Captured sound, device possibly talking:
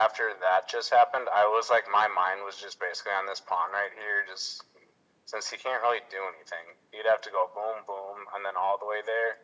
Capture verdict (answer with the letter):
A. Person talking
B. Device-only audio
B